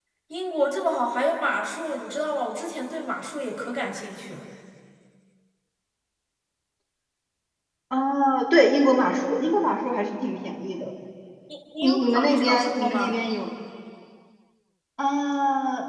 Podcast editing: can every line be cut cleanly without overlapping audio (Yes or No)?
No